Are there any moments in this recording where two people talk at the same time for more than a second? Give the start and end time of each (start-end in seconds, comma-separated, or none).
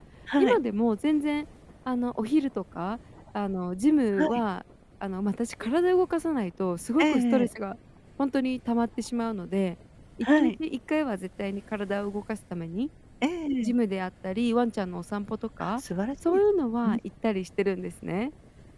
none